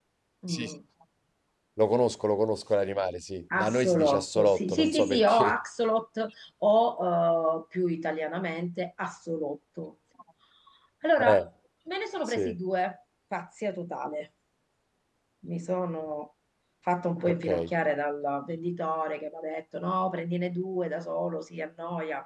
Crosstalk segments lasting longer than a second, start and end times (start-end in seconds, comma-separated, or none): 3.6-5.5